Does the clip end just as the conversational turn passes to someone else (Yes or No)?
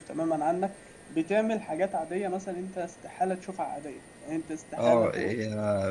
Yes